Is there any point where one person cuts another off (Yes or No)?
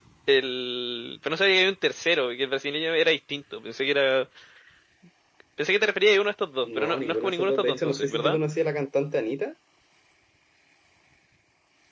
Yes